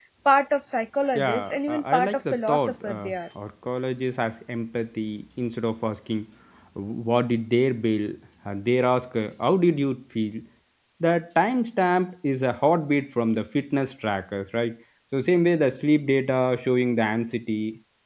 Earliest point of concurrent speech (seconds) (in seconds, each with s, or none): 1.1 s